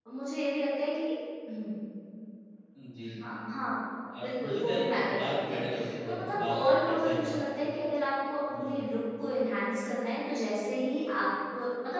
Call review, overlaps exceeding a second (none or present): present